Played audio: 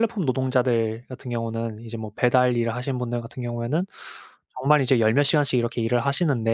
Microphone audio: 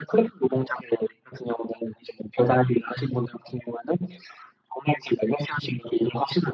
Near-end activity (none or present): none